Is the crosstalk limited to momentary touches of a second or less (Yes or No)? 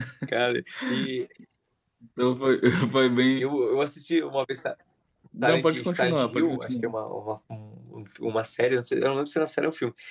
No